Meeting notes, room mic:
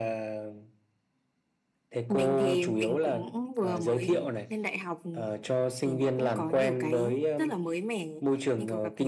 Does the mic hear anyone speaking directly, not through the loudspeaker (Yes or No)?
No